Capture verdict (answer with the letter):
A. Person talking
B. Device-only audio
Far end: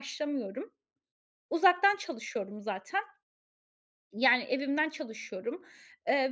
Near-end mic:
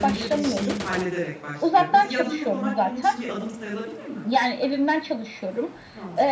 A